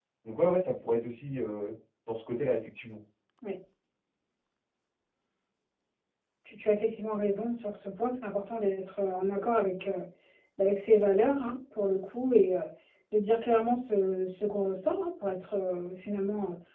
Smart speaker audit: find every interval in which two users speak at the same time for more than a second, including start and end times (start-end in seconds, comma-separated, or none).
none